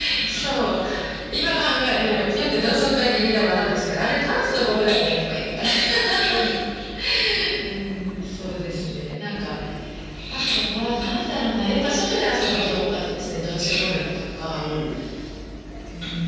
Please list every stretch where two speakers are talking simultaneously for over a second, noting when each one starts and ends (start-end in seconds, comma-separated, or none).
none